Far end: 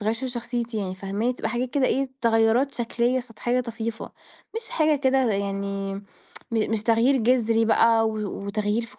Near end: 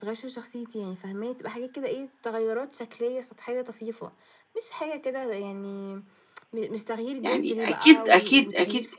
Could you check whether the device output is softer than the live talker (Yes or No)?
Yes